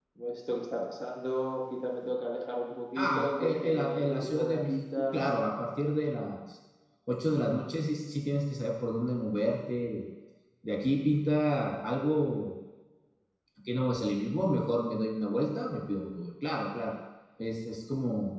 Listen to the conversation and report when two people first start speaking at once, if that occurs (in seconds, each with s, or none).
3.0 s